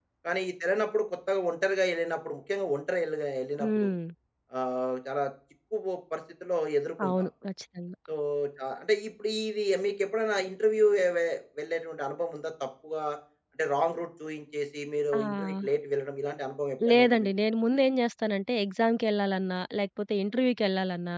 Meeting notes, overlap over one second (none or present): none